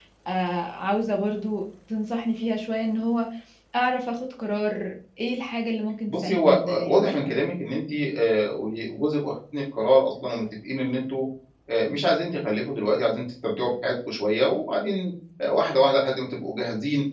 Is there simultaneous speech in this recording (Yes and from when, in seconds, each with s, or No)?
Yes, from 6.1 s